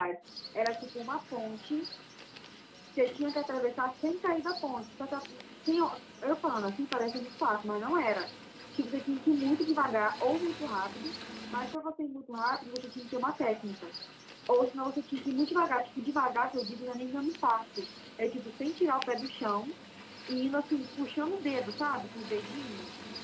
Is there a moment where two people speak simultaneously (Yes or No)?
No